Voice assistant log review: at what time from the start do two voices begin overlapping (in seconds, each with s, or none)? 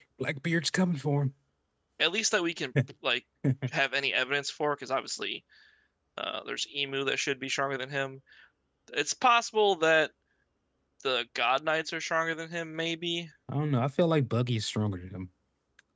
none